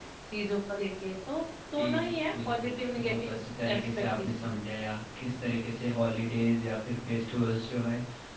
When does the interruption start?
1.8 s

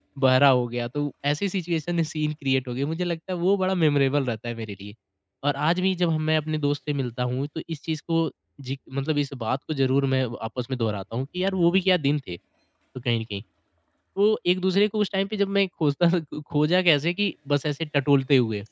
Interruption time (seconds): none

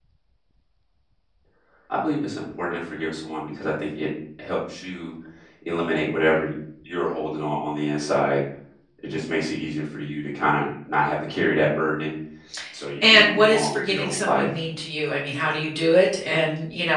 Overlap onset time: 13.0 s

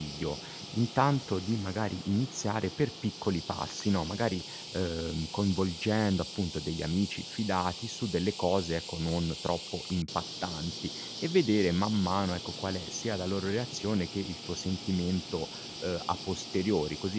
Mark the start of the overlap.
none

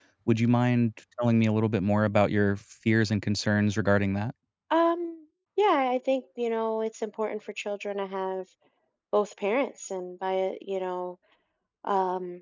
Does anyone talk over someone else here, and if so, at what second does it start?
none

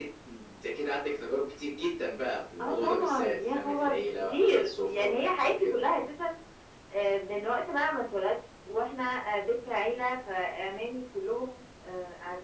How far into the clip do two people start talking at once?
2.6 s

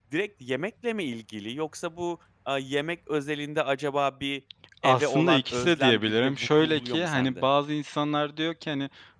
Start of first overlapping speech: 4.8 s

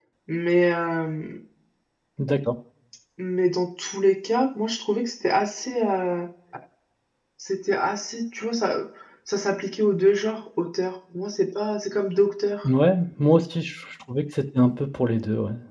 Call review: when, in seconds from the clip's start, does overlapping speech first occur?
none

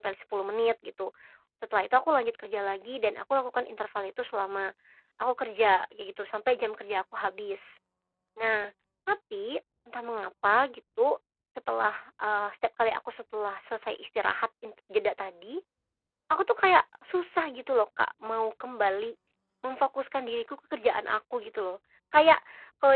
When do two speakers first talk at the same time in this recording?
none

